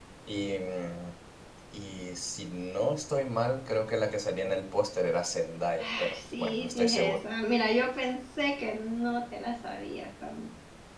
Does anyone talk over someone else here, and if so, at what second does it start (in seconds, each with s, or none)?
5.8 s